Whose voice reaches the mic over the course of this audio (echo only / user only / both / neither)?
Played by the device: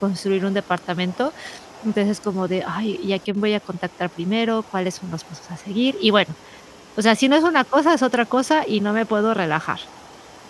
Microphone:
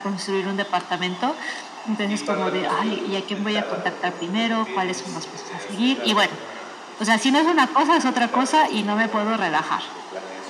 both